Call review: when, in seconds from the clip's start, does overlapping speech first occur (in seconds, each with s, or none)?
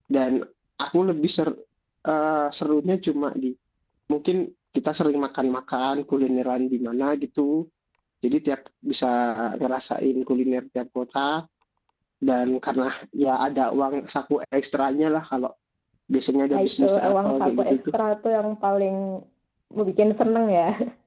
16.5 s